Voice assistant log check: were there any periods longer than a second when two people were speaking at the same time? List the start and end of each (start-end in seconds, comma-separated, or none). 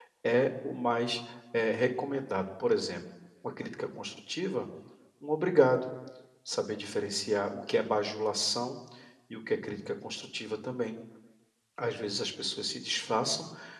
none